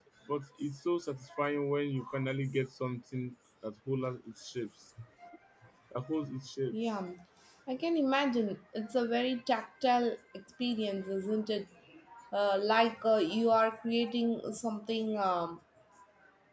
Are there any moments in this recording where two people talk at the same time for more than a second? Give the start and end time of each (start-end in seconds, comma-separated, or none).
none